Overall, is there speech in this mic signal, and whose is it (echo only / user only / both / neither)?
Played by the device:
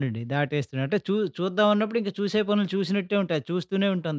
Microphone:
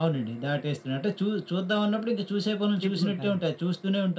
both